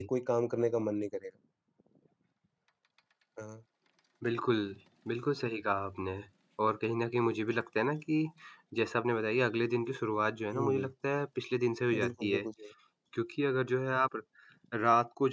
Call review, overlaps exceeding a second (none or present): none